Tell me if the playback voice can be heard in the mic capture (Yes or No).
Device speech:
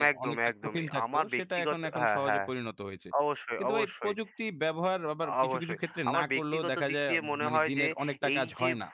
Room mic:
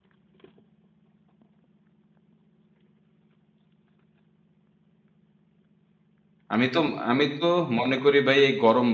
No